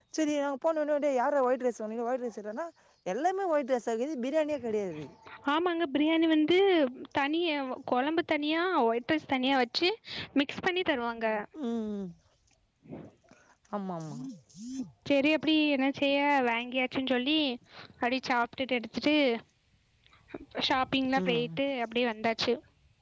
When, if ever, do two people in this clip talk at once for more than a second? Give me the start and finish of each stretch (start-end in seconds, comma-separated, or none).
none